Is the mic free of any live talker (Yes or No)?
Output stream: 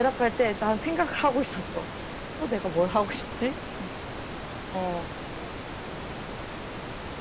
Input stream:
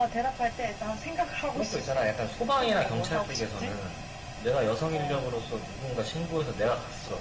No